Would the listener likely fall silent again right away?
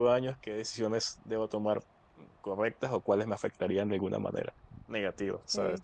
Yes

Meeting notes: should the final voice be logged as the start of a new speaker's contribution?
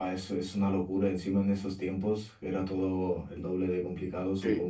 Yes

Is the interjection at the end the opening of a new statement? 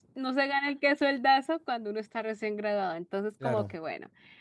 No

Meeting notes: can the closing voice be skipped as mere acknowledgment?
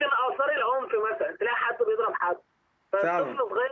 Yes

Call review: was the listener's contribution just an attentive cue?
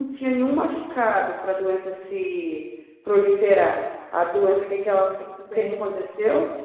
Yes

